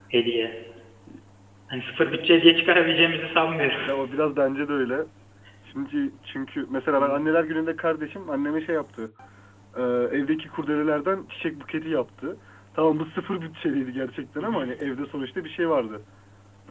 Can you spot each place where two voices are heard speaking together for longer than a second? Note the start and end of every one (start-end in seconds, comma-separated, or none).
none